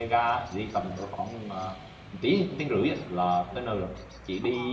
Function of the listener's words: listening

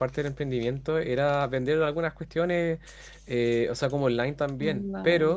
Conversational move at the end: listening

